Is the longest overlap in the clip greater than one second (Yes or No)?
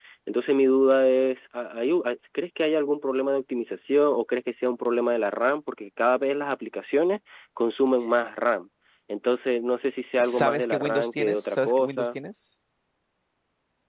Yes